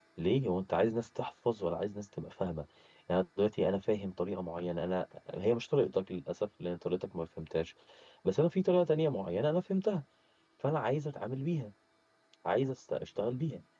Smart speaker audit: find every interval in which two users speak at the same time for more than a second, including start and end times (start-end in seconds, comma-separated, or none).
none